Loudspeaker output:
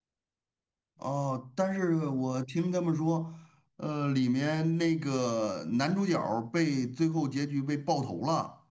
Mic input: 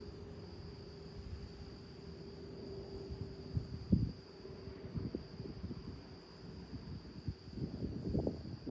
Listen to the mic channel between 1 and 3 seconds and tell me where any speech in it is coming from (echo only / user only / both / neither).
neither